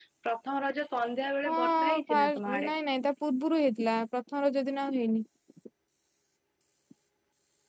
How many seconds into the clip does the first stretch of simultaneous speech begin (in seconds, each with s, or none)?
1.4 s